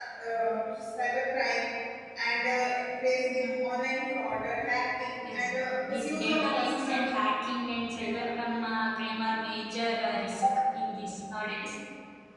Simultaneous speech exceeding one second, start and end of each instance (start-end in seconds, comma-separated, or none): 5.3-7.0